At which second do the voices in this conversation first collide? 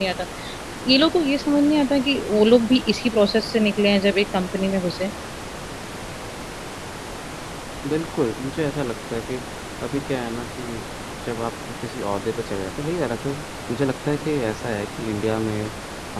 none

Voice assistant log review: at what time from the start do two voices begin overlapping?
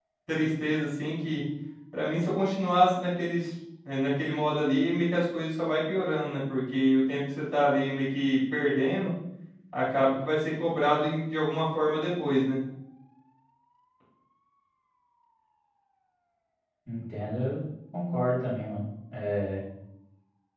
none

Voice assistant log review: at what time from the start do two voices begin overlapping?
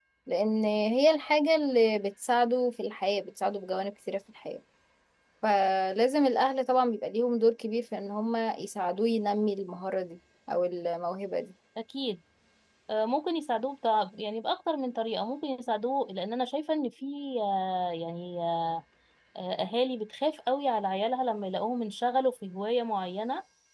none

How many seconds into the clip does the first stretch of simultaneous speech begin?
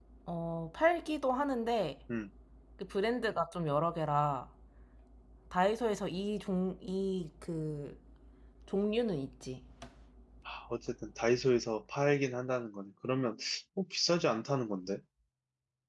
none

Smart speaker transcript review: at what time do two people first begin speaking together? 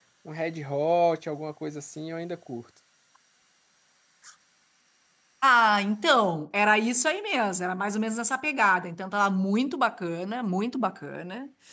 none

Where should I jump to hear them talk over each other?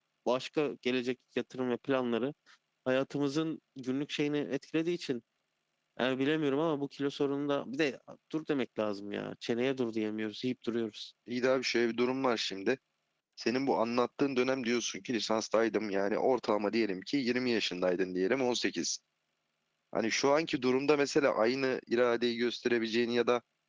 none

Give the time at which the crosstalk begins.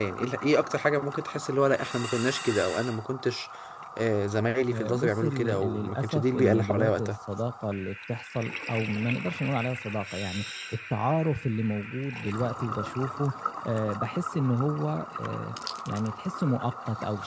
4.7 s

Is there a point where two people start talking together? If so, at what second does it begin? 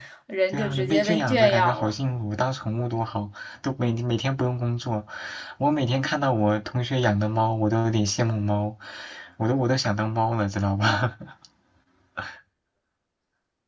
0.5 s

